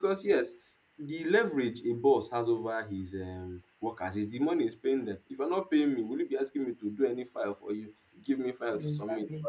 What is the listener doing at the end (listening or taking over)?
listening